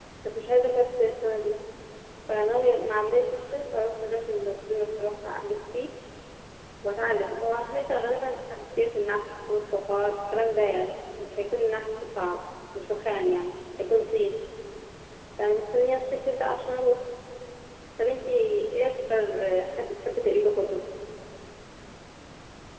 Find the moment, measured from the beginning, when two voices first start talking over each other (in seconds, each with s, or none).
none